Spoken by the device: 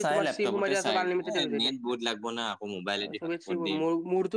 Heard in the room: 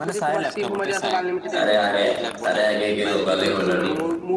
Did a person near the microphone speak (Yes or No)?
Yes